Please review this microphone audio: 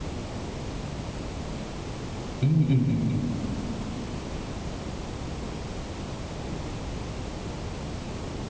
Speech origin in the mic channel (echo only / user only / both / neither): user only